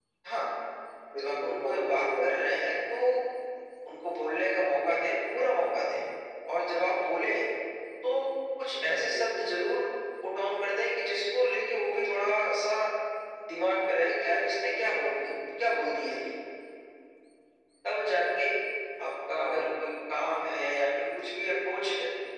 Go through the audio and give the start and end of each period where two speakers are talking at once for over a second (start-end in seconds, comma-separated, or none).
1.2-2.6